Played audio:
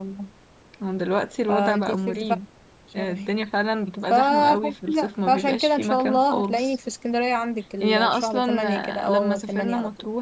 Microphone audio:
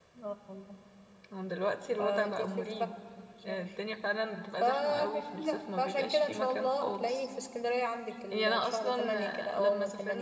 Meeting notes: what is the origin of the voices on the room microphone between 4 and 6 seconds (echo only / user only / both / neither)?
echo only